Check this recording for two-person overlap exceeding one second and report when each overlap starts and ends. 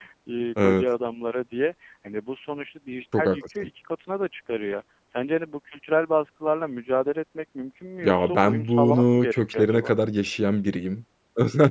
8.0-9.9

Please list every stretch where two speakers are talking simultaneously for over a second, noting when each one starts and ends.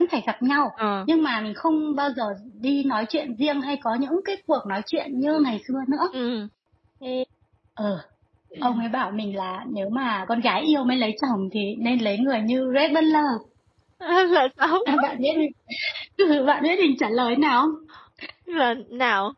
none

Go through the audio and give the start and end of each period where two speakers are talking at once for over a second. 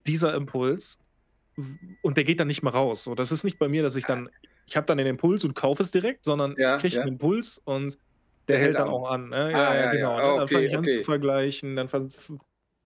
9.5-11.1

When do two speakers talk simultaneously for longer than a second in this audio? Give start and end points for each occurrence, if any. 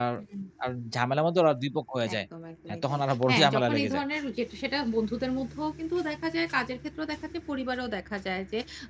2.7-4.0

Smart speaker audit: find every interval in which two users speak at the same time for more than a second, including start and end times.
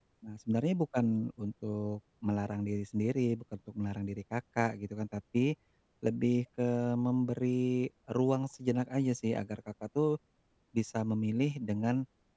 none

